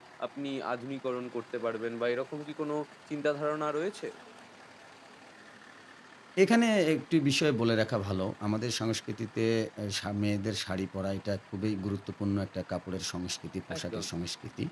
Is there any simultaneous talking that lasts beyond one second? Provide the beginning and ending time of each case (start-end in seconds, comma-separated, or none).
none